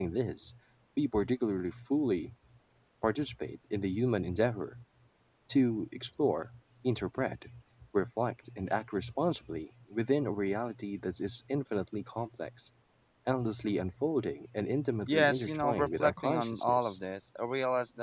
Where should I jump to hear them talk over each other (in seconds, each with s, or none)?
15.1 s